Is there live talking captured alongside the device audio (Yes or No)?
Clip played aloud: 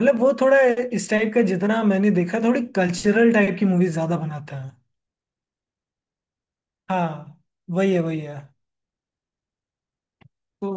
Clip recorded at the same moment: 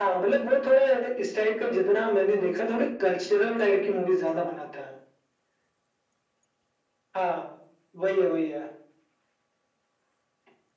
Yes